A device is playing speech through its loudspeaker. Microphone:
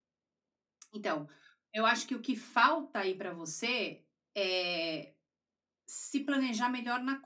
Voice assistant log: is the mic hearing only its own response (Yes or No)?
No